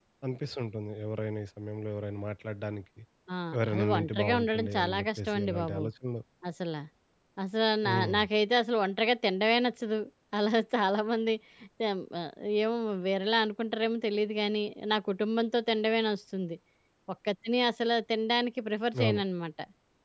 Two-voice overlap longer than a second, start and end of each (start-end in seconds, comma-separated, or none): 3.7-5.8